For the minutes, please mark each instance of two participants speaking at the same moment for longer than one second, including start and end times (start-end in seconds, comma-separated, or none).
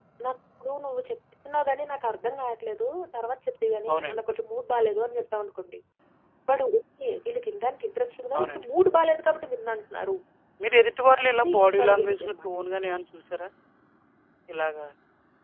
11.2-12.5